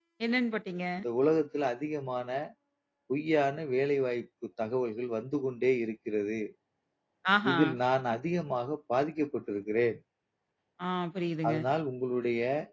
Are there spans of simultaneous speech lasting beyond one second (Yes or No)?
No